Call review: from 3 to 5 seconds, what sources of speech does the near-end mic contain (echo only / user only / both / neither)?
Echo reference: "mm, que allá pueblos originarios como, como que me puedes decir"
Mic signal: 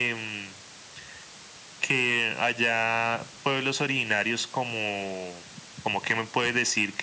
echo only